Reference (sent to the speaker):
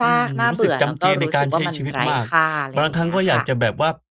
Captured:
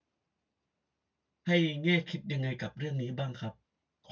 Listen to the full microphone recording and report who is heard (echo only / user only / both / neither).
user only